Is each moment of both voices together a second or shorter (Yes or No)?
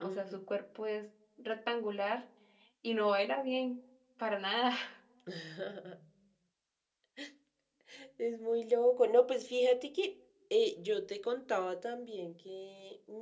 Yes